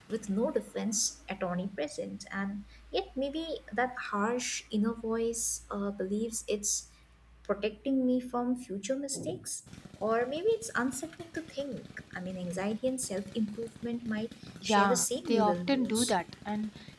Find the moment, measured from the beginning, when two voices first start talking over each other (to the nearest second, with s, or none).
15 s